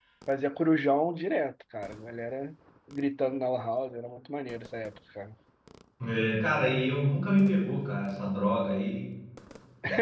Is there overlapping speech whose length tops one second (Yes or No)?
No